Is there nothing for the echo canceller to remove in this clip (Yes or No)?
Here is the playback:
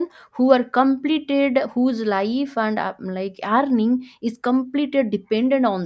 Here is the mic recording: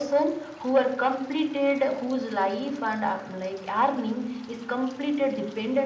No